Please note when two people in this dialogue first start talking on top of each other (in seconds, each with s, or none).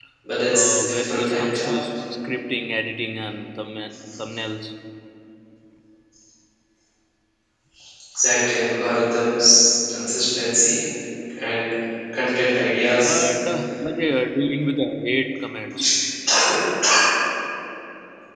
0.5 s